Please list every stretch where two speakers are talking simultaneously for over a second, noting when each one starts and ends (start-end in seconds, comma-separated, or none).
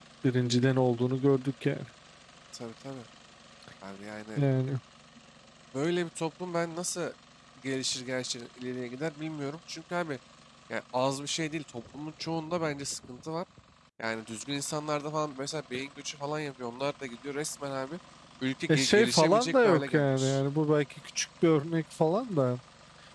18.7-20.4